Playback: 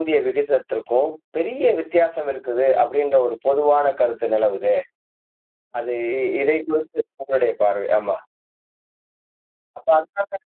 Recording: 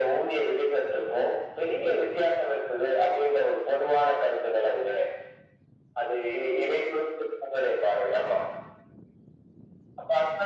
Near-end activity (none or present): none